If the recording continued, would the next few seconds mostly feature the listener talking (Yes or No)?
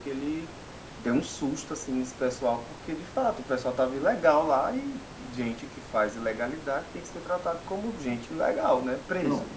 Yes